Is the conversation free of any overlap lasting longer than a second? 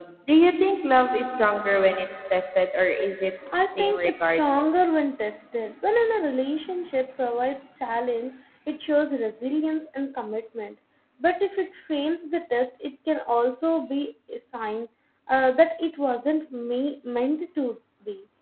No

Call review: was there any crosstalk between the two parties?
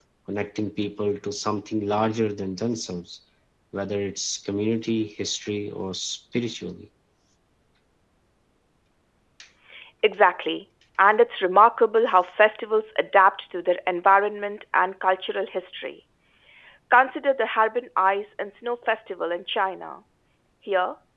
No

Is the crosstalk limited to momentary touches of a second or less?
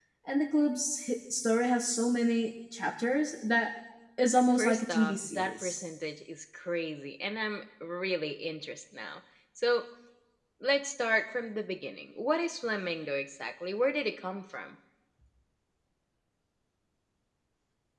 No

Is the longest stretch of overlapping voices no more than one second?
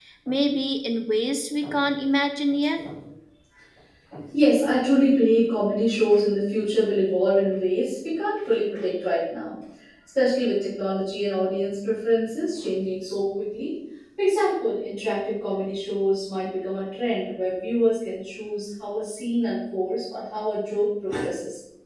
Yes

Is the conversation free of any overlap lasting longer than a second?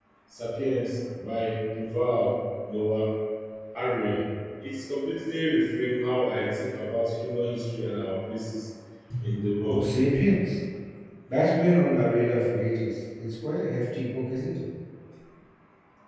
Yes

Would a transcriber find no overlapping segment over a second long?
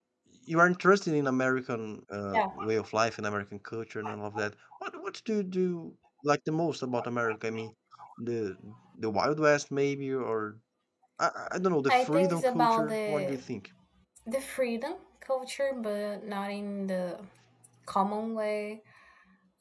No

